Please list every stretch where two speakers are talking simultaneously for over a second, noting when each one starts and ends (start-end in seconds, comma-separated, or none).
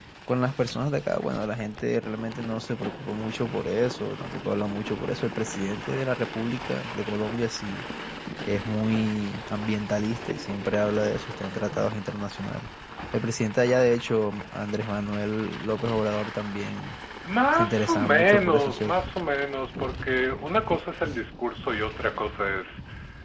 17.5-18.9